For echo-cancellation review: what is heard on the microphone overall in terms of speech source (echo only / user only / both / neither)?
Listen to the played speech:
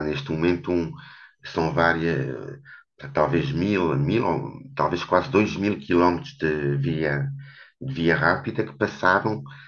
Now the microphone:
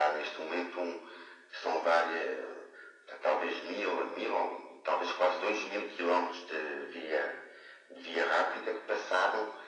echo only